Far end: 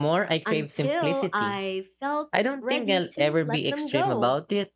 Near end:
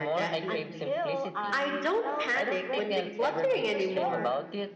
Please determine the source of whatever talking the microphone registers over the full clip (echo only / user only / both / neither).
both